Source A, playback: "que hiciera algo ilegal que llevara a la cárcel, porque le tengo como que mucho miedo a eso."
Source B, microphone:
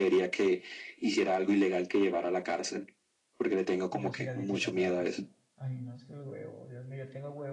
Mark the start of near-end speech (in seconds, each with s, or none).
3.9 s